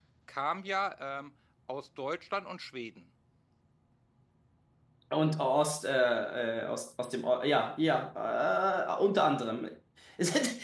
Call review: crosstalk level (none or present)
none